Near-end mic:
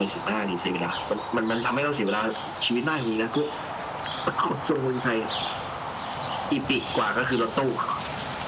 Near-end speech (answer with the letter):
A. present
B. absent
B